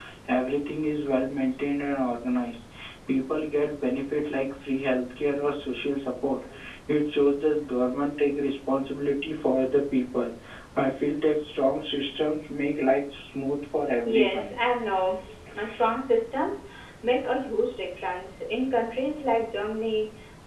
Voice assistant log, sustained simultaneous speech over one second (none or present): none